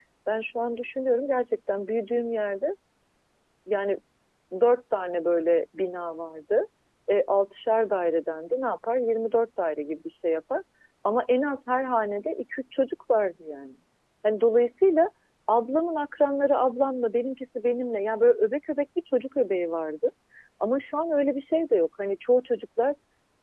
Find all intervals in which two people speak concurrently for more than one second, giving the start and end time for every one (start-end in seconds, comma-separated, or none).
none